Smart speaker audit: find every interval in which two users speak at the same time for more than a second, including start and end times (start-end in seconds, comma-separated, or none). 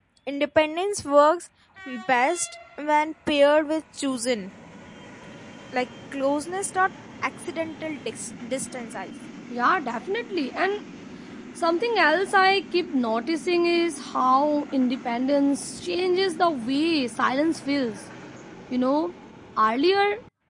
none